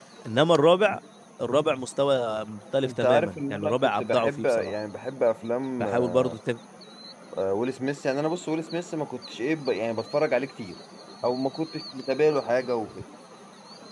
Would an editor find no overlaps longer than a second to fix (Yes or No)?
No